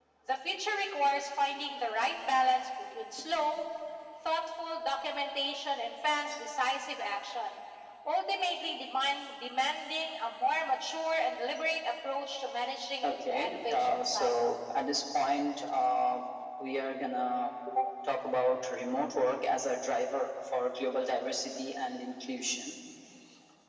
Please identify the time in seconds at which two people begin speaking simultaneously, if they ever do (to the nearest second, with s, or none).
13 s